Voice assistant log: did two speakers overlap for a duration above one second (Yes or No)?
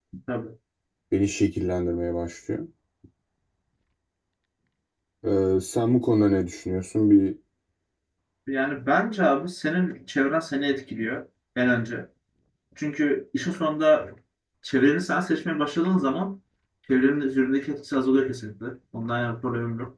No